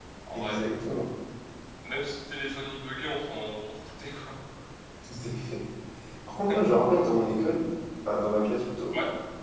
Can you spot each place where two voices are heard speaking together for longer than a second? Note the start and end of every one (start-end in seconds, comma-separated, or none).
none